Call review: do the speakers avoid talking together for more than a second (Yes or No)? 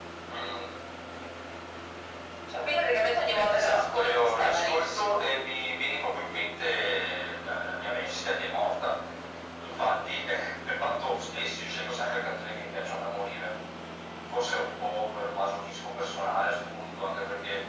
No